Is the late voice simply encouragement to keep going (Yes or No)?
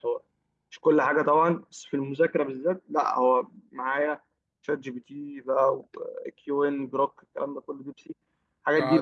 No